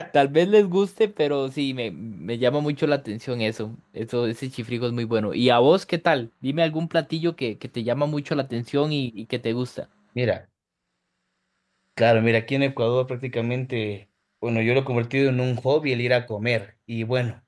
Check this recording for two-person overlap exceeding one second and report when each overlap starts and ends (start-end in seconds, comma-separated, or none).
none